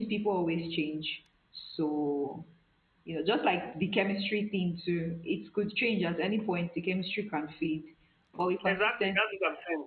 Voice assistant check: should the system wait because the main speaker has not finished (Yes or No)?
No